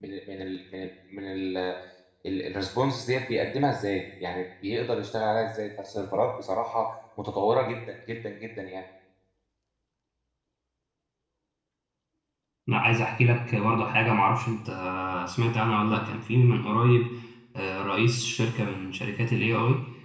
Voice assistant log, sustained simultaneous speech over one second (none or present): none